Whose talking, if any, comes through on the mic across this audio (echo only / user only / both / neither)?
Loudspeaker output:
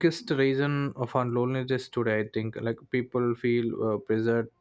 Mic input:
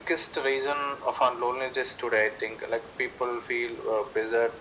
echo only